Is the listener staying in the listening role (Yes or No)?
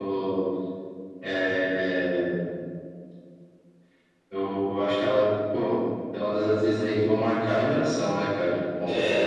No